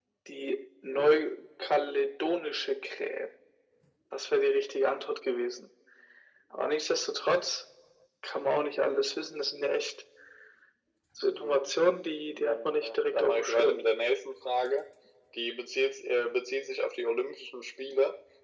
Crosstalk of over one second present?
Yes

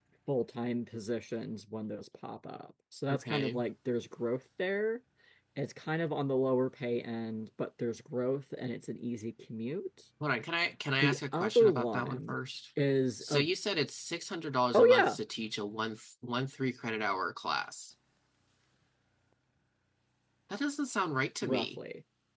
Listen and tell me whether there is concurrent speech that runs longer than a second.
Yes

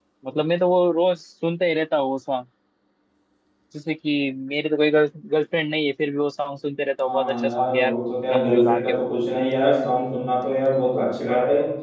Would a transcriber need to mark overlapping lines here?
Yes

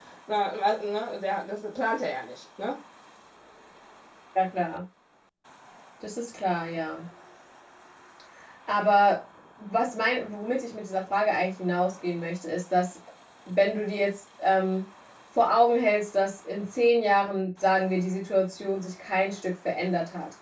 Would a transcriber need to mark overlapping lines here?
No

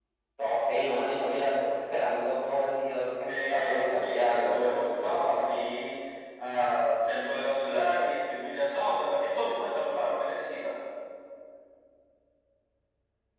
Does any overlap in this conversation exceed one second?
Yes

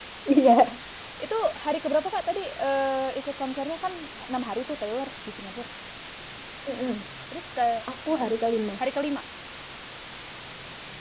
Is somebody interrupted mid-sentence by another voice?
No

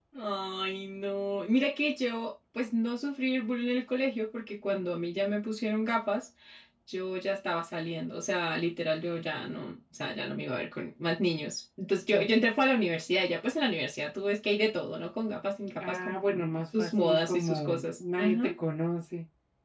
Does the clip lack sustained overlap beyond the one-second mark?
No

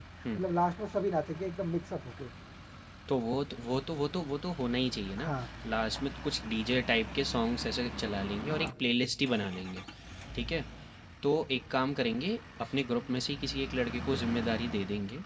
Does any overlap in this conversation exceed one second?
No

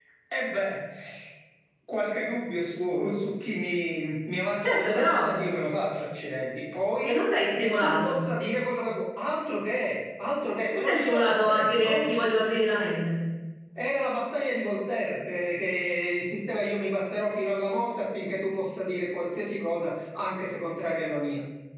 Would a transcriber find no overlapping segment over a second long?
No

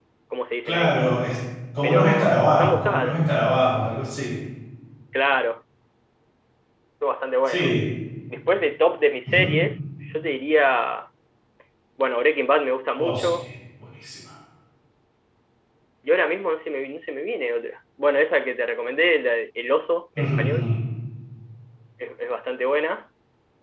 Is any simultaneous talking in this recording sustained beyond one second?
Yes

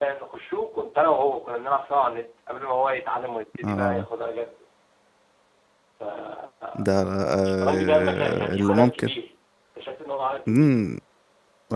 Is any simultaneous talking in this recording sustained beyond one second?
Yes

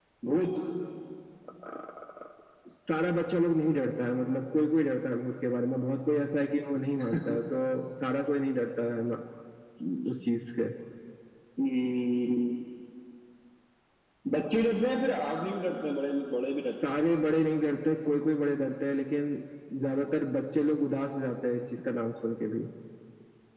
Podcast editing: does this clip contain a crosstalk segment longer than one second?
No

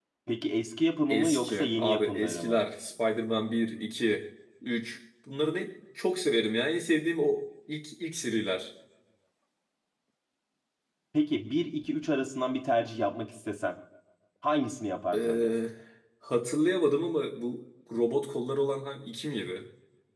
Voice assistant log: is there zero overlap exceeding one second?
No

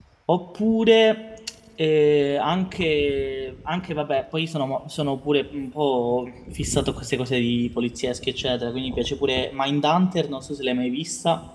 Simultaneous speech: No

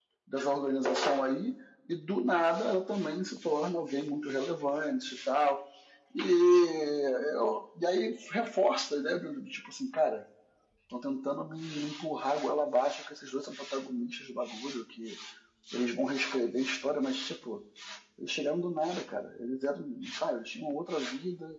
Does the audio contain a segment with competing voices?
No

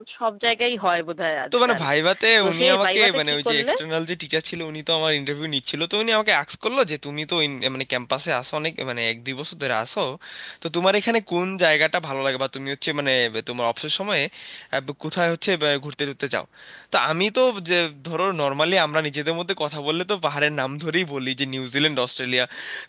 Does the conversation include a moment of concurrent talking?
Yes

